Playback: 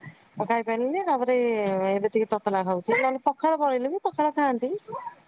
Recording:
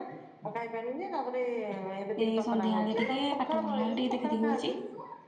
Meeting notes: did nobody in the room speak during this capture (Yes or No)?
No